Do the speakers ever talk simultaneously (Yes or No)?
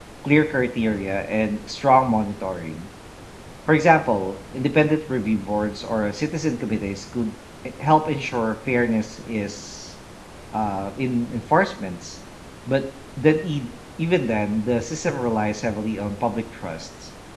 No